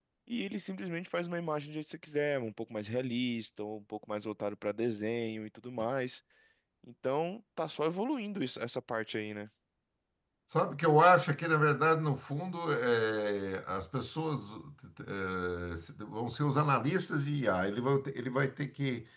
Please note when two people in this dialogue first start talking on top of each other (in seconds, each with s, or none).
none